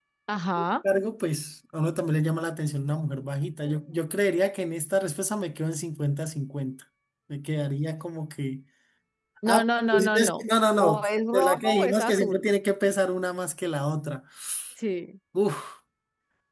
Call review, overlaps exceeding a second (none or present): present